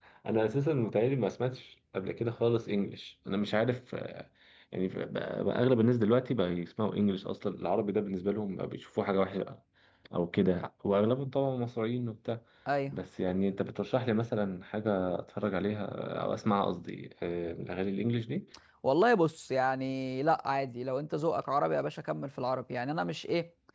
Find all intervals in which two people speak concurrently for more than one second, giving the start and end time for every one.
none

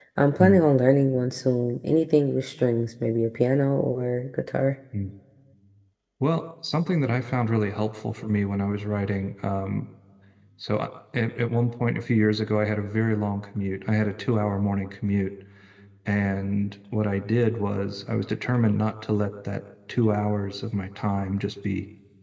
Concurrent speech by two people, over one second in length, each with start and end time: none

